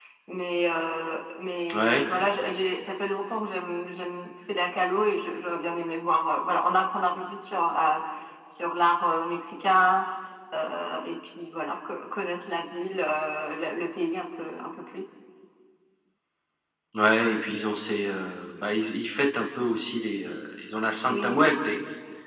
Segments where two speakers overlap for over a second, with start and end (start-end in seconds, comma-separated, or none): none